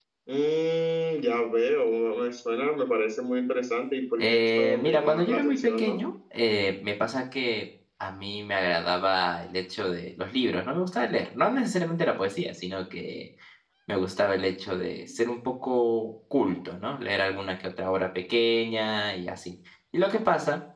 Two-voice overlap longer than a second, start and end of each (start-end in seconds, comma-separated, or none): 4.2-6.0